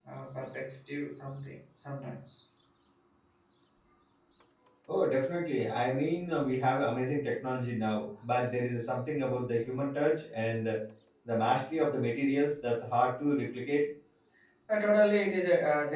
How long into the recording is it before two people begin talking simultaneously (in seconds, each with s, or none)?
none